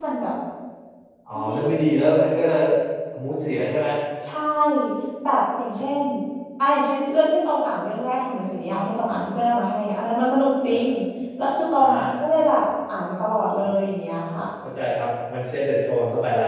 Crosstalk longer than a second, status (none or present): none